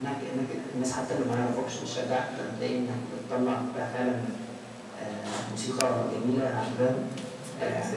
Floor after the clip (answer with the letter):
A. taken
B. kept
B